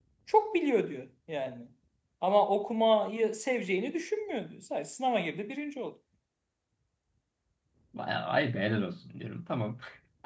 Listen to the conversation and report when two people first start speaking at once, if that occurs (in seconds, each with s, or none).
none